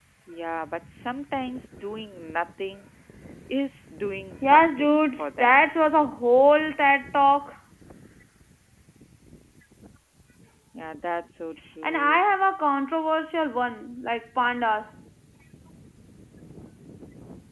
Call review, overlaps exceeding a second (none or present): present